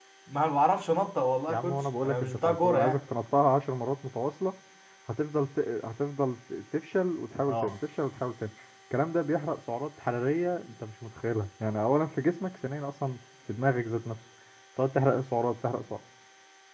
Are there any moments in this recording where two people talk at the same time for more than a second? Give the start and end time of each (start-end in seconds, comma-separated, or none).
1.5-3.0